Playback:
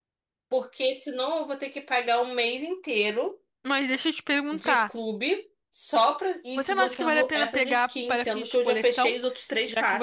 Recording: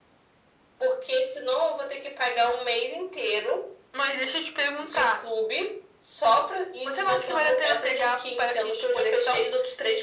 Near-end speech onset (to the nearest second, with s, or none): none